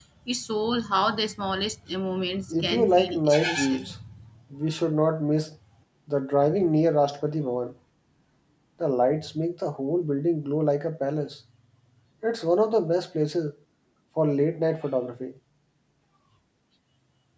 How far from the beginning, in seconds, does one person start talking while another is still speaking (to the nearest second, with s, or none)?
3 s